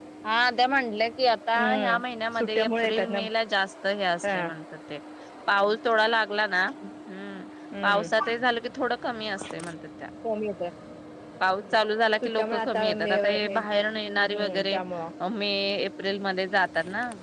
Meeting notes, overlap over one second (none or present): present